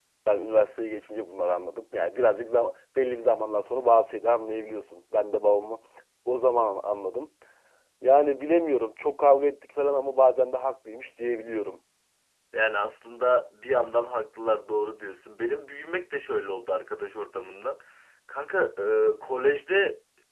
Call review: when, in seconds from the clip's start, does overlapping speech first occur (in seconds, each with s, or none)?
none